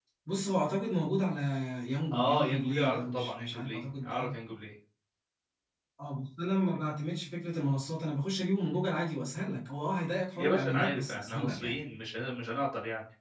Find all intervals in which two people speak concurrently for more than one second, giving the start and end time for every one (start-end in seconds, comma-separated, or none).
2.1-4.3, 10.3-11.8